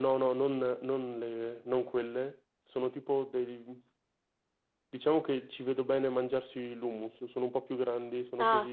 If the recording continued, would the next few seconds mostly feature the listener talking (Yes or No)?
Yes